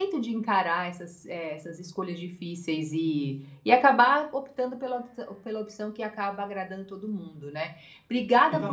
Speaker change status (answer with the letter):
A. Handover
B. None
B